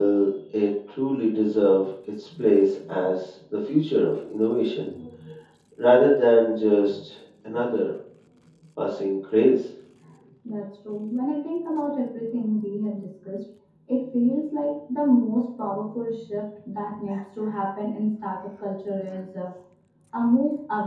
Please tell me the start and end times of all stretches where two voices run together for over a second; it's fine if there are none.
none

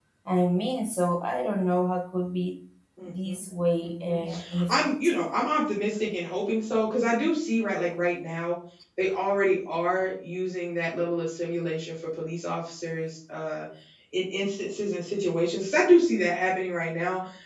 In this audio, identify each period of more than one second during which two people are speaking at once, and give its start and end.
3.8-5.3

